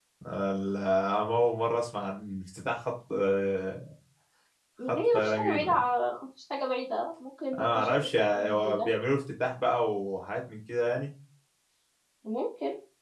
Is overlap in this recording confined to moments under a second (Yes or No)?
No